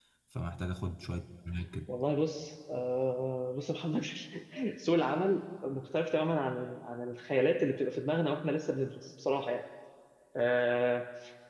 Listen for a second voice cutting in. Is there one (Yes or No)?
No